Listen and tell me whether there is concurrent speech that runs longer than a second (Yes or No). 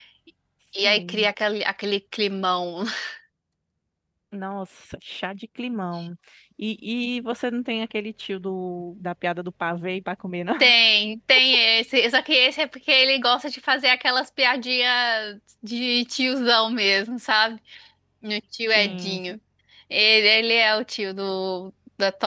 No